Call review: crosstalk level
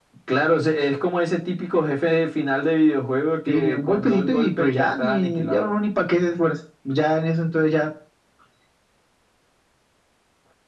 present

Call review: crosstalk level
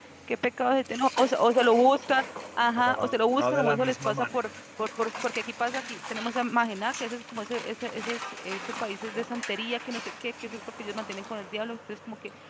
present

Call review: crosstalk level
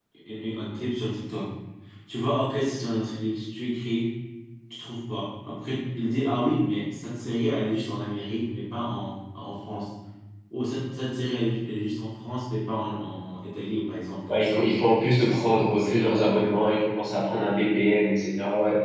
present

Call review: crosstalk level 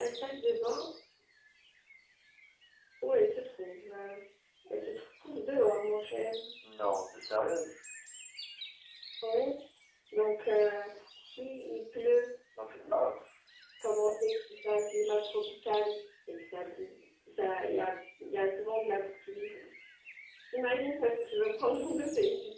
none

